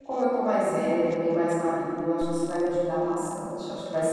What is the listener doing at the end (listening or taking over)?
taking over